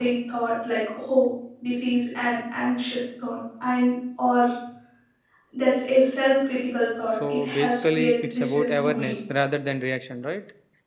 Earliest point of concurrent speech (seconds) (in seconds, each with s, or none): 7.2 s